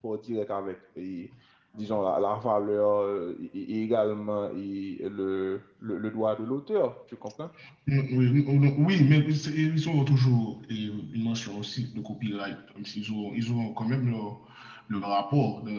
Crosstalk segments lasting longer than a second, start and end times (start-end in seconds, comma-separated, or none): none